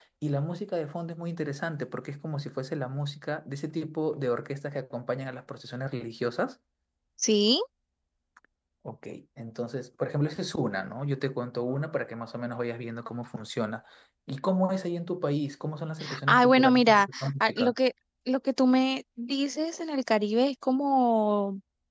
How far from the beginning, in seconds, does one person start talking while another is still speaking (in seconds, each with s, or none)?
16.3 s